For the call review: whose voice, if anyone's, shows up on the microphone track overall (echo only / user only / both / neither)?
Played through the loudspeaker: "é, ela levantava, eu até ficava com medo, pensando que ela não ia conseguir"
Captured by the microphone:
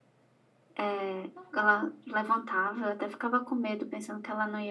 both